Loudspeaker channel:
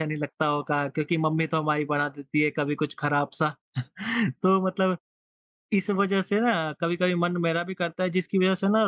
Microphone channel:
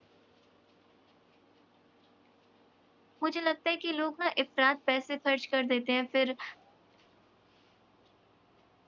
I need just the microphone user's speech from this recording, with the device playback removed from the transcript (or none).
मुझे लगता है कि लोग ना इफ़रात पैसे खर्च कर देते हैं, फिर